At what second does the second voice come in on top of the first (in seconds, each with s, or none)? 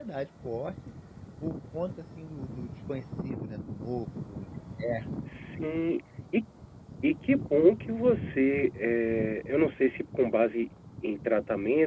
none